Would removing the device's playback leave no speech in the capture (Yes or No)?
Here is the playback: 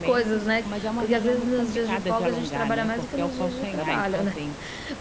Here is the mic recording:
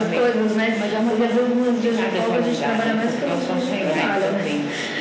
Yes